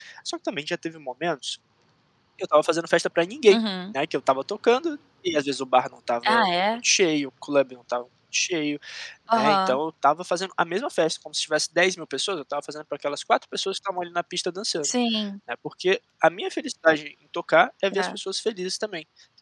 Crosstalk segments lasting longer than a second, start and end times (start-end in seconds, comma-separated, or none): none